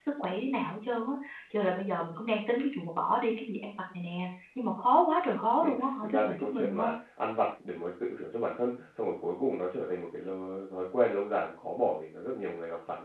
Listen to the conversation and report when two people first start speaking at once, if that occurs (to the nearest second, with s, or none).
6 s